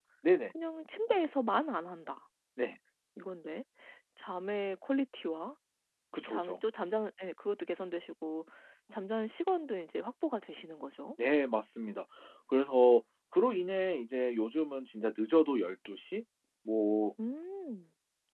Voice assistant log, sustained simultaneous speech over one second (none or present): none